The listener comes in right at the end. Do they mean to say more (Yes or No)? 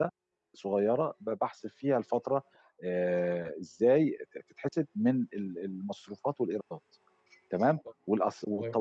No